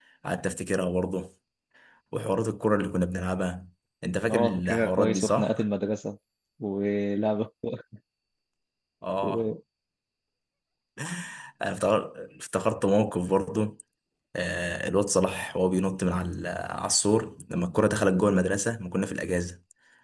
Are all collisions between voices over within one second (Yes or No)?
No